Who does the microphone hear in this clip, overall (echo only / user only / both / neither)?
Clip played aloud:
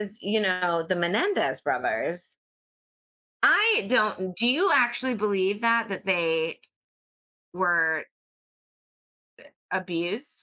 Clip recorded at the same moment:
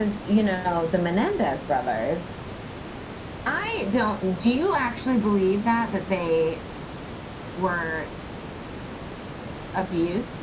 echo only